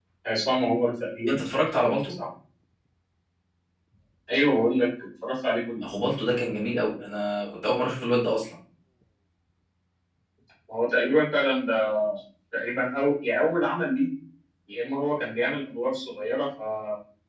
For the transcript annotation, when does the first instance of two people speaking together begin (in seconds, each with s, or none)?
none